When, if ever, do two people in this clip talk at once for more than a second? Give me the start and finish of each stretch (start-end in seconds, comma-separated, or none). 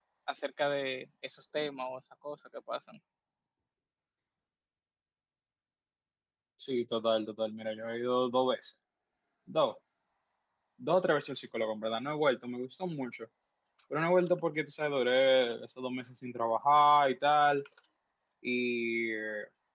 none